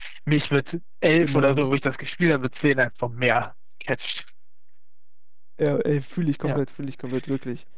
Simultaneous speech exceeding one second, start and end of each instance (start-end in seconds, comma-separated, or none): none